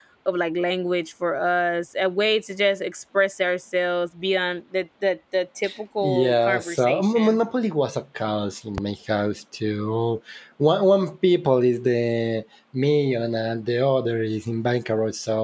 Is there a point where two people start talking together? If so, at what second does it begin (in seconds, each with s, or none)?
6.0 s